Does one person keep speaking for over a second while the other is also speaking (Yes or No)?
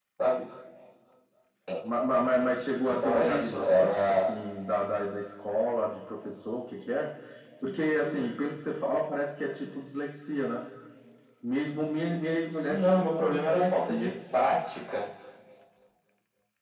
Yes